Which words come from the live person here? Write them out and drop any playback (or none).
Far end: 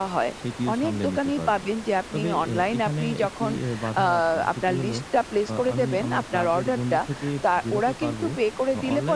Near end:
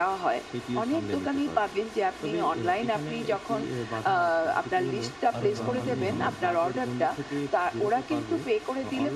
আরো যেমনটি বললেন,